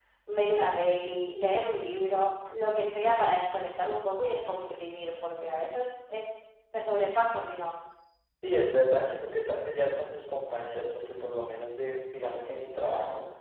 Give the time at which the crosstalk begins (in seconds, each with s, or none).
none